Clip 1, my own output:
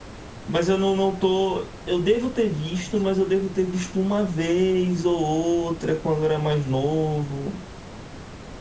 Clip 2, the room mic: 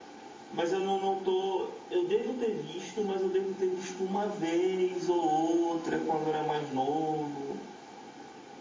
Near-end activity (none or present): none